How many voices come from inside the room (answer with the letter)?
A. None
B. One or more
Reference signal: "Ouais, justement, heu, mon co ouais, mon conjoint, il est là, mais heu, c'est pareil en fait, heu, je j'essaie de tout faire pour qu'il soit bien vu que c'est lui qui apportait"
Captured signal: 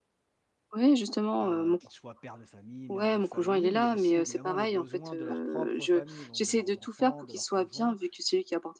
B